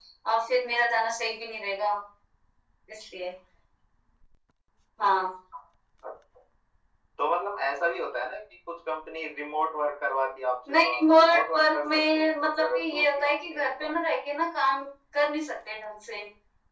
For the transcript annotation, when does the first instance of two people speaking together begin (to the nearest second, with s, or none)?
11 s